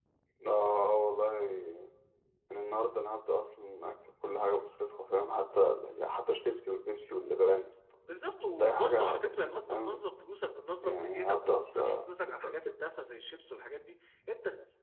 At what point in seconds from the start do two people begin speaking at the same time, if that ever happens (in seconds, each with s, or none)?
8.6 s